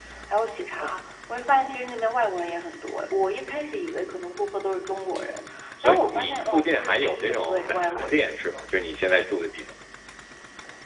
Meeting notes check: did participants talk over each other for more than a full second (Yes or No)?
Yes